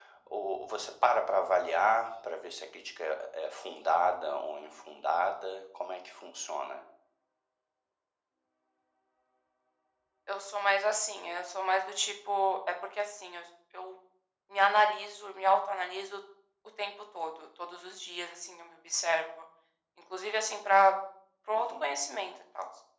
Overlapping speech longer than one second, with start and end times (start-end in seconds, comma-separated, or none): none